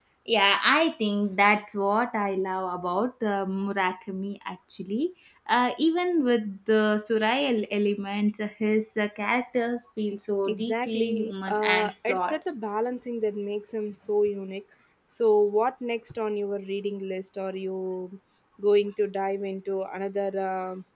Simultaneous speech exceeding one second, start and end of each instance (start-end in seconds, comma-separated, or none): 10.5-12.3